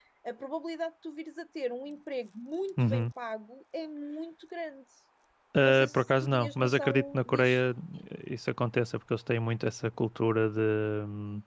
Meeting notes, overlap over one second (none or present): present